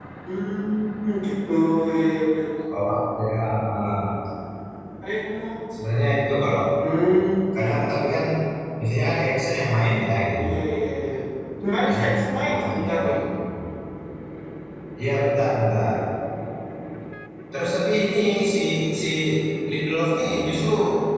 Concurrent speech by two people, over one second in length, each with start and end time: 11.8-13.2

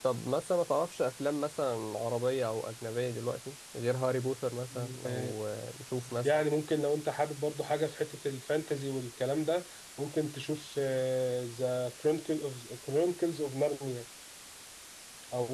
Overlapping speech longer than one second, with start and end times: none

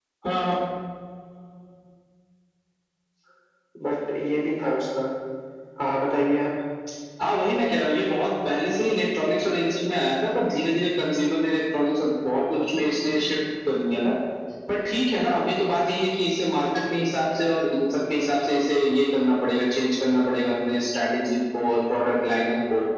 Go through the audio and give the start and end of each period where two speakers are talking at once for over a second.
none

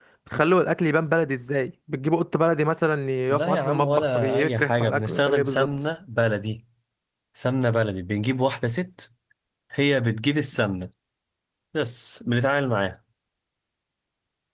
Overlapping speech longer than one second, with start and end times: 3.3-5.7

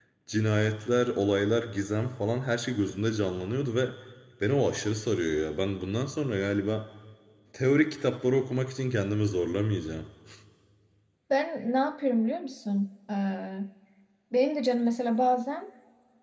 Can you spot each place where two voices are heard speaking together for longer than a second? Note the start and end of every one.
none

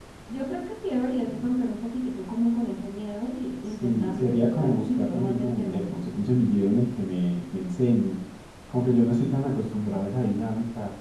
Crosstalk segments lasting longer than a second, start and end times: 3.6-5.8

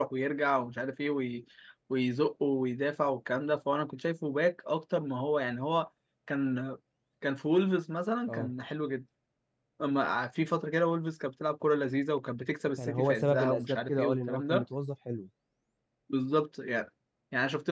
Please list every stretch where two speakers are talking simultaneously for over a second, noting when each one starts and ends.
12.8-14.6

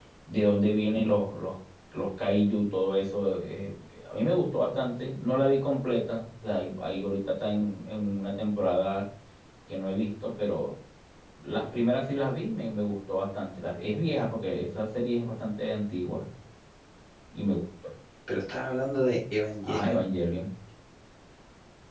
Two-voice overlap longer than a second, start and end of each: none

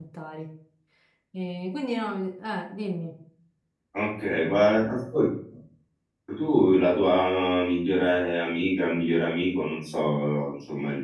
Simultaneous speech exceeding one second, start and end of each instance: none

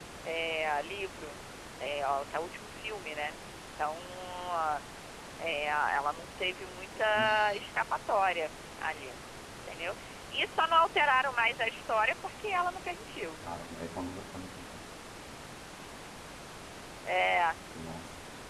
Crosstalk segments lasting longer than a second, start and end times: none

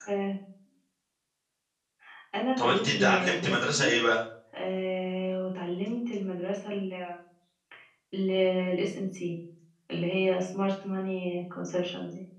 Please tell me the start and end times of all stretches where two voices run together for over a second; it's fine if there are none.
2.6-4.0

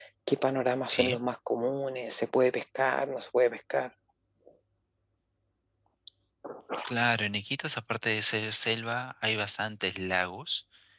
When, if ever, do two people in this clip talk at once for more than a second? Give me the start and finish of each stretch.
none

